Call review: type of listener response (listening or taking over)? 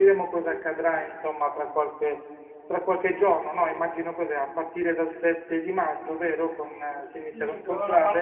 taking over